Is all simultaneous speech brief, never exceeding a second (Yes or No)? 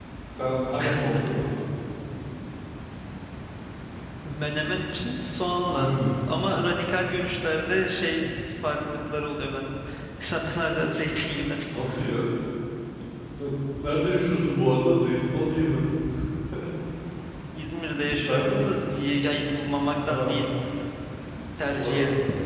Yes